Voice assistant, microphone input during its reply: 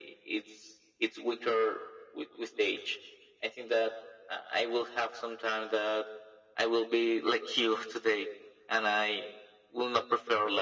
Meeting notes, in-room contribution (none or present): none